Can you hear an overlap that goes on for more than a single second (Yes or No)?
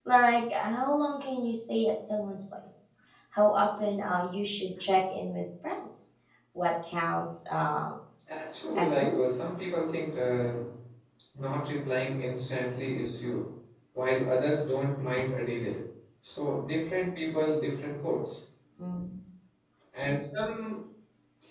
No